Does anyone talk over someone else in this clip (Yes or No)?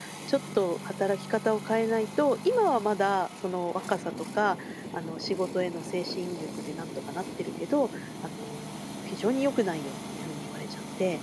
No